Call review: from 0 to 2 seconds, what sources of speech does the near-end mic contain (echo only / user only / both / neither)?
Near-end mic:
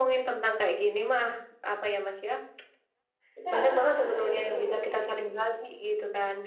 echo only